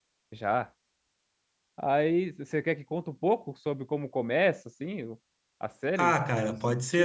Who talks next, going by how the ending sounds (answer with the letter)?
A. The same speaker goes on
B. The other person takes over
B